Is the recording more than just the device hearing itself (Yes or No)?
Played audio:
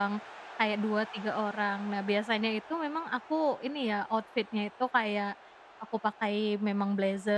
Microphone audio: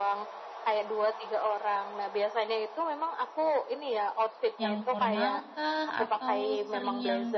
Yes